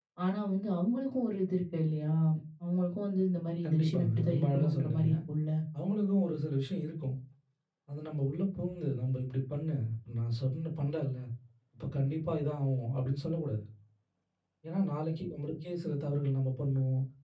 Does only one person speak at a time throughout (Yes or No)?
No